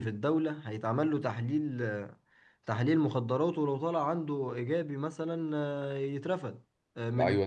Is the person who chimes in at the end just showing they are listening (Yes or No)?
No